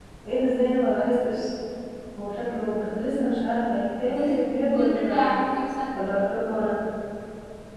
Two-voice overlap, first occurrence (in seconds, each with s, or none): 4.1 s